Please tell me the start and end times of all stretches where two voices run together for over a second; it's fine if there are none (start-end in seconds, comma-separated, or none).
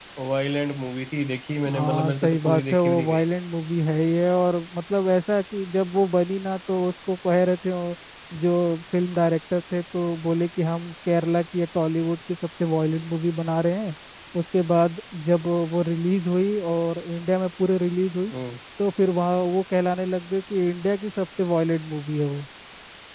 1.7-3.2